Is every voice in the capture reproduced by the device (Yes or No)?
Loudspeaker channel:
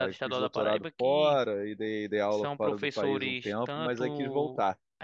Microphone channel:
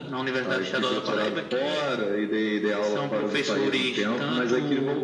Yes